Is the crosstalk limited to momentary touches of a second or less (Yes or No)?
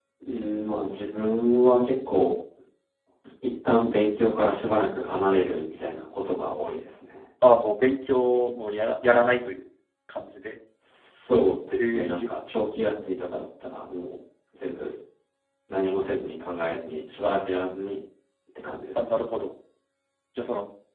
Yes